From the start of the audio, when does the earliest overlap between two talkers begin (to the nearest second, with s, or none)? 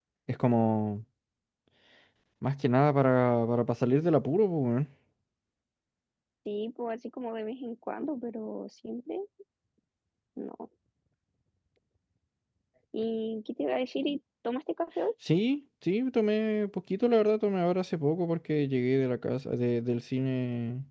none